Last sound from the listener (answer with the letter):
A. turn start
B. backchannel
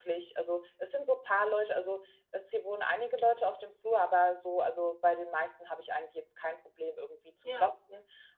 B